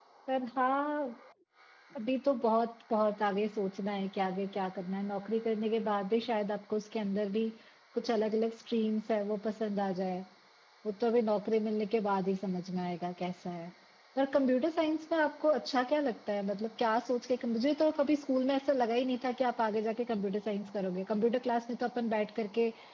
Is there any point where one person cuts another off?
No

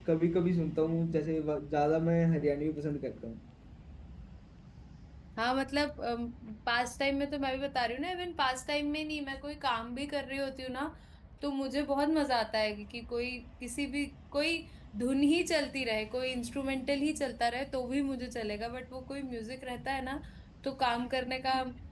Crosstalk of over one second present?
No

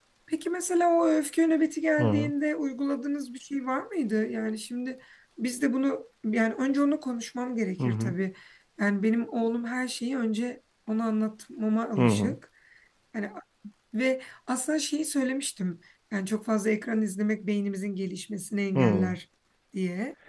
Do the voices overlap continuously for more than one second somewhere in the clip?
No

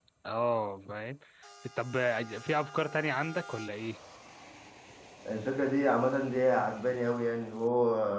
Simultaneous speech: No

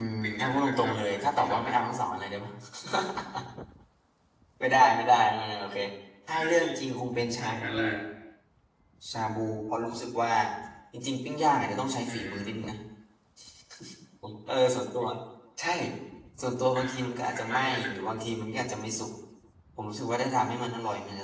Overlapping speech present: Yes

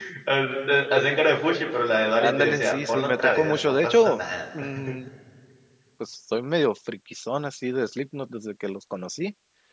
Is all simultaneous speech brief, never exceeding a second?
No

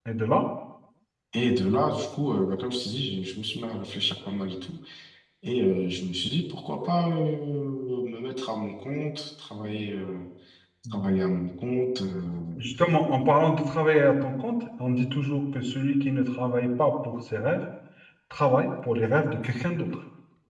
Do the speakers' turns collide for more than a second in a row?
No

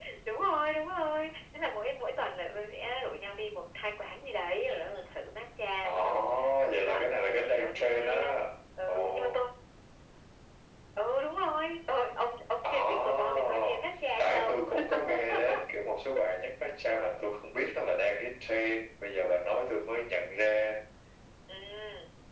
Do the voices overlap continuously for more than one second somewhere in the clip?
Yes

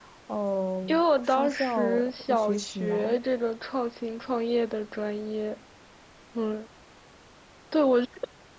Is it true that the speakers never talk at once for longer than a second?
No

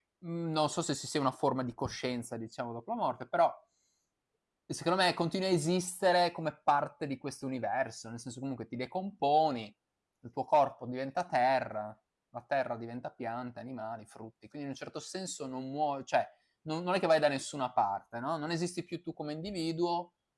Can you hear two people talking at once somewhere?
No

